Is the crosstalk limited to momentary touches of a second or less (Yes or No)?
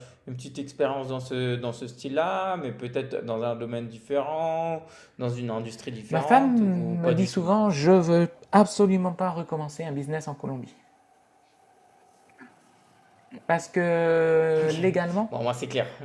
No